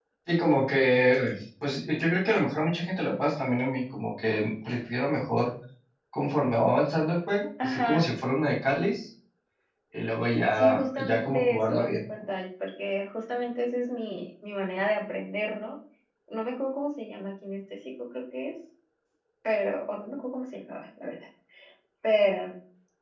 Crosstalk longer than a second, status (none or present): present